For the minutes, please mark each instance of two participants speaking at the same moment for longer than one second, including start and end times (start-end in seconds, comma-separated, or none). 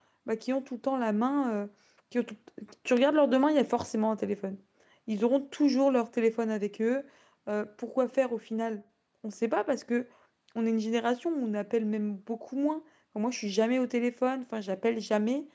none